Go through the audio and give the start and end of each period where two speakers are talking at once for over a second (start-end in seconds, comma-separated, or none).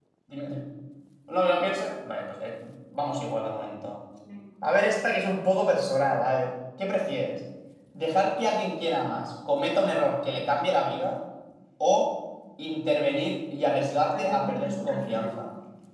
14.1-15.4